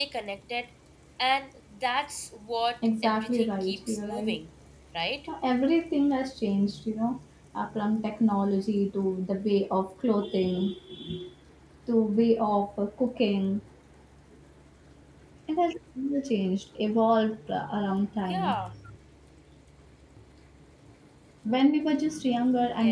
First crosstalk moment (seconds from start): 3.0 s

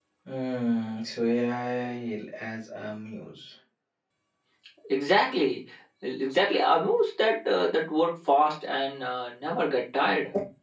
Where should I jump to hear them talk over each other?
none

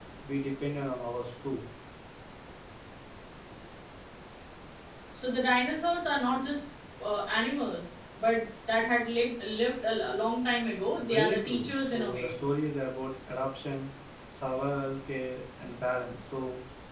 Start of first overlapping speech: 11.0 s

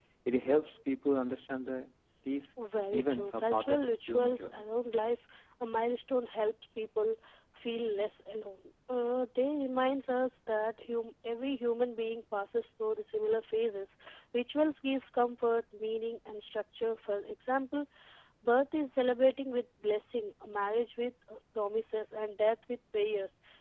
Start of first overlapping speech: 2.9 s

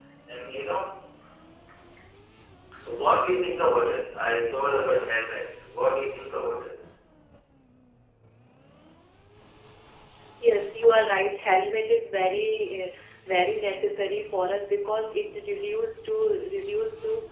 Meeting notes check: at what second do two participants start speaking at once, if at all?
none

